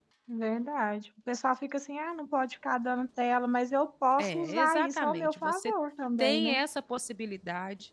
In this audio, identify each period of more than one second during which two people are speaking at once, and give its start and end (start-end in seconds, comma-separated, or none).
4.2-5.7